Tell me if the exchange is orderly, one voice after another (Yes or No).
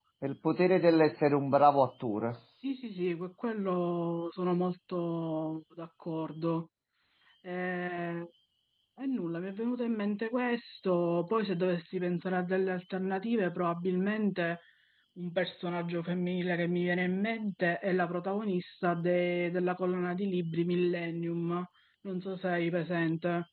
Yes